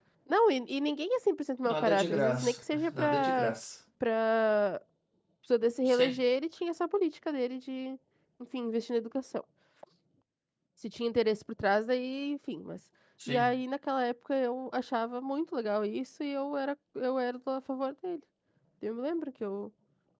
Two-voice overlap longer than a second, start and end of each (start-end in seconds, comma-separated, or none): 1.6-3.5